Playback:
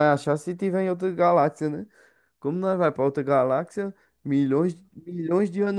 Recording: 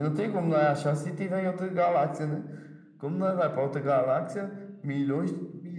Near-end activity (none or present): none